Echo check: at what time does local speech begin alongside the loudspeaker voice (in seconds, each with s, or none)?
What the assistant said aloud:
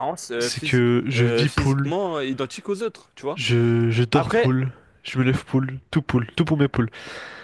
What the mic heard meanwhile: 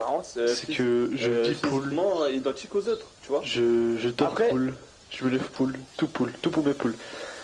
none